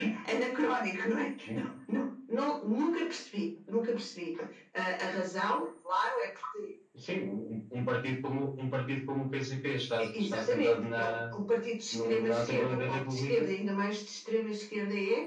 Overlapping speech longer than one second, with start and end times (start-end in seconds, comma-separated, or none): 10.0-11.2, 11.9-13.5